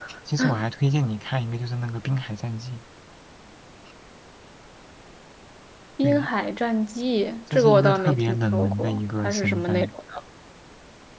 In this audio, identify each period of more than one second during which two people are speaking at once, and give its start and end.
7.5-9.9

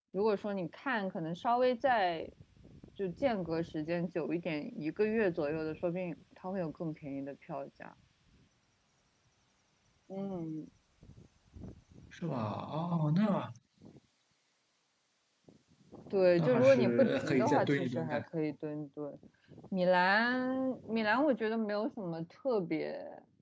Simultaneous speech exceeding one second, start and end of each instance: 16.4-18.2

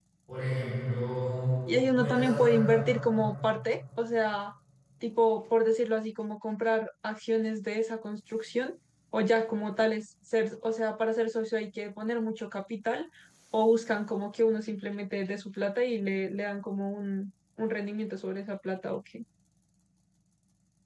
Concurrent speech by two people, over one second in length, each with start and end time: 1.9-3.2

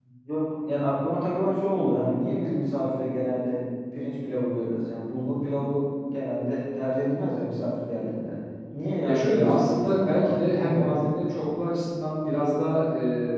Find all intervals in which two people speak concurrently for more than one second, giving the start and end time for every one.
9.1-11.0

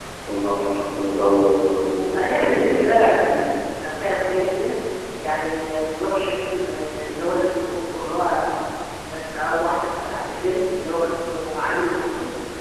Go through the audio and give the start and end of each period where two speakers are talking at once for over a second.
2.1-3.6

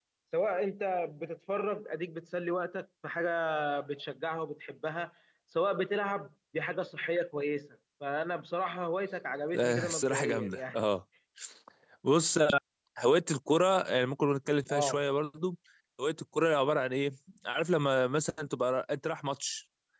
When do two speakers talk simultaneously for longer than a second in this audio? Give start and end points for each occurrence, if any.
9.5-10.8

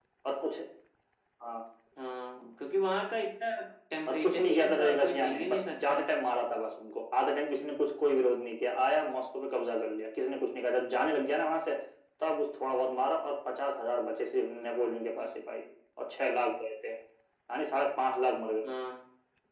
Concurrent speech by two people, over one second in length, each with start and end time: 4.1-6.0

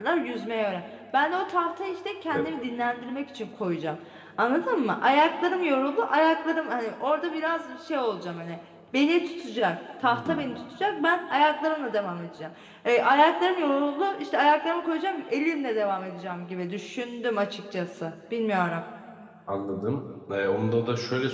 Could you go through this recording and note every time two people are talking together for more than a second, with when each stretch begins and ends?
none

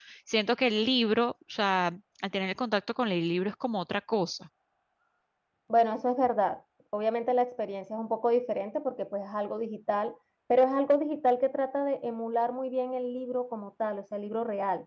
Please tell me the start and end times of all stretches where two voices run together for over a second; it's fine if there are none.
none

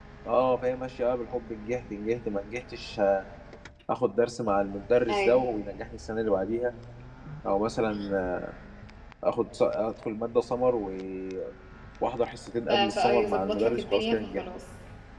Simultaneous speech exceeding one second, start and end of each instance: 12.7-14.4

